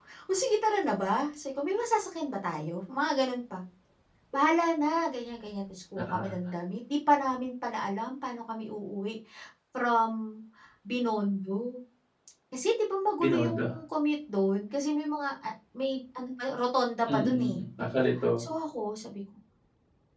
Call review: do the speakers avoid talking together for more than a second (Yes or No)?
Yes